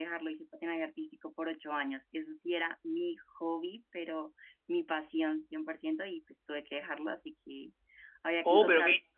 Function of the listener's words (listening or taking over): taking over